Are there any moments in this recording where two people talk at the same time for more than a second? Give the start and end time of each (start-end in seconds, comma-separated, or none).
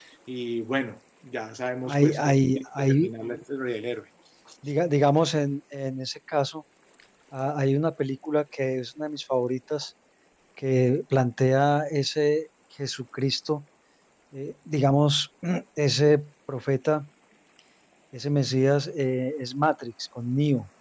1.9-3.1